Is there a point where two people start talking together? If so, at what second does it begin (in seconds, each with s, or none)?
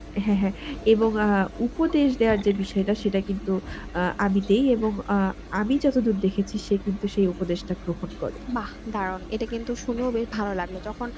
none